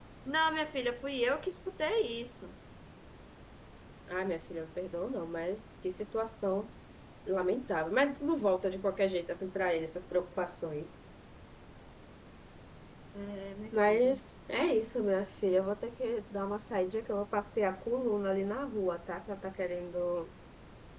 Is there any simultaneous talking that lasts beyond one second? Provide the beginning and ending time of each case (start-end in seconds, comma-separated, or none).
none